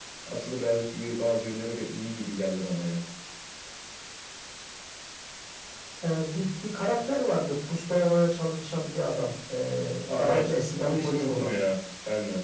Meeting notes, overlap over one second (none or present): present